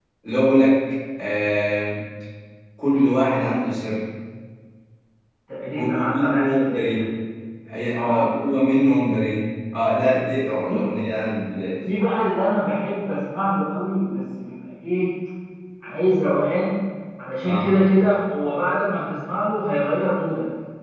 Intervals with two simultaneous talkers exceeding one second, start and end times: 5.7-7.0

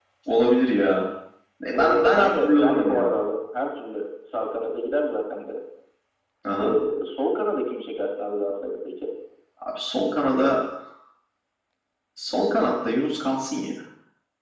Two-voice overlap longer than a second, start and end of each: 1.7-3.1

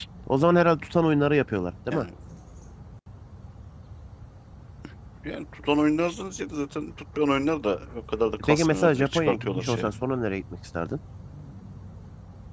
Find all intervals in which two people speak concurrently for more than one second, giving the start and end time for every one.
8.4-9.9

